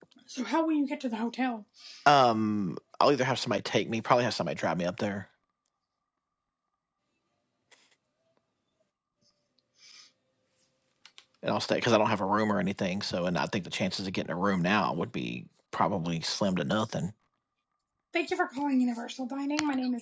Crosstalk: none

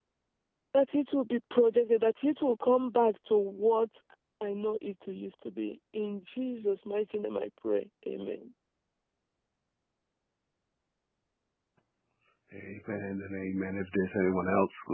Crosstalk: none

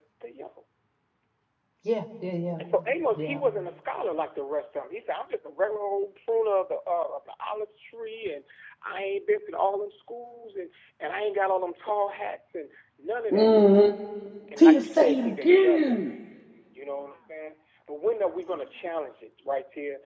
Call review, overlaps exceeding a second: present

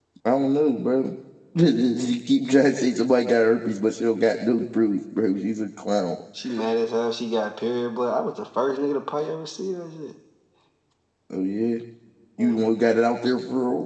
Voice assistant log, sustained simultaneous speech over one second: none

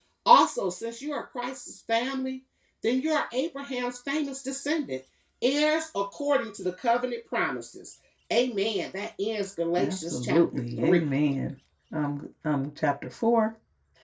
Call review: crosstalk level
present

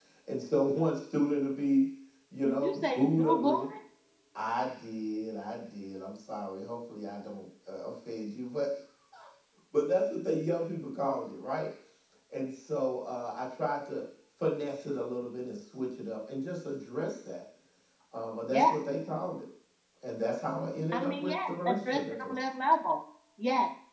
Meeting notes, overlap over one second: present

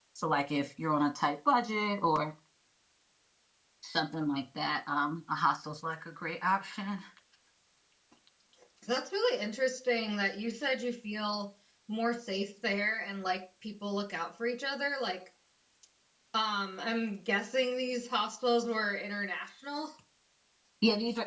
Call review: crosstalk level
none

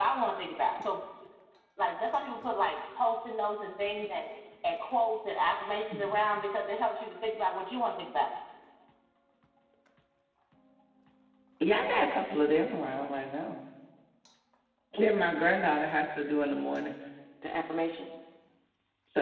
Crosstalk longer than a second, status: none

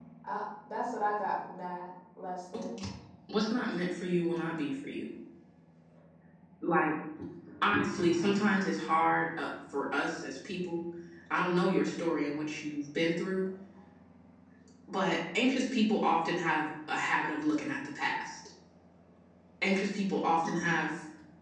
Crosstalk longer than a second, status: none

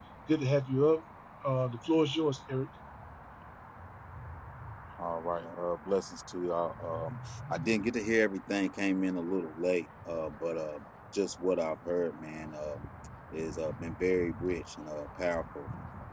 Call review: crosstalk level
none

